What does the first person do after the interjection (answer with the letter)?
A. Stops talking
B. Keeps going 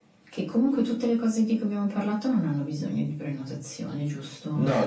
A